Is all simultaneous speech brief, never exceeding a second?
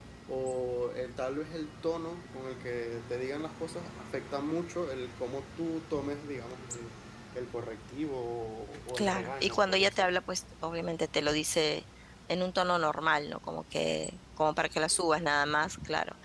No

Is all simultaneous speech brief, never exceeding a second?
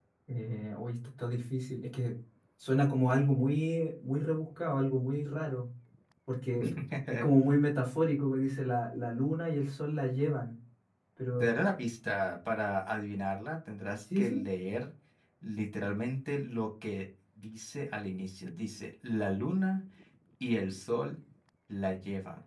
Yes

